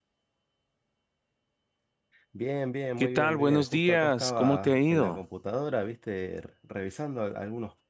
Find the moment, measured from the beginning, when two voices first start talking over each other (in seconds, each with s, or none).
3.0 s